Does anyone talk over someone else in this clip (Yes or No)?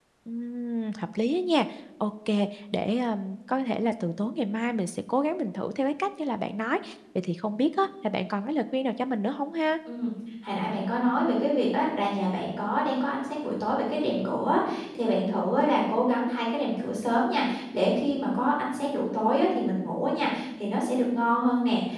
No